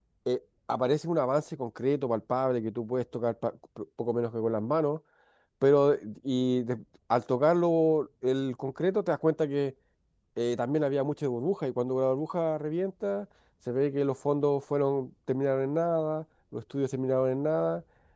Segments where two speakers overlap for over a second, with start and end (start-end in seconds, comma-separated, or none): none